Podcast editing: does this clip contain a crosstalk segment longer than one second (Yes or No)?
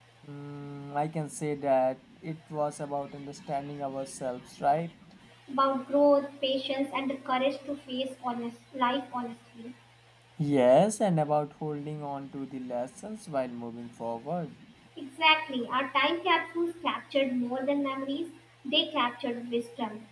No